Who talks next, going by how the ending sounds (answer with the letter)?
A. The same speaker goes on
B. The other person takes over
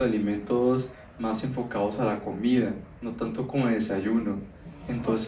A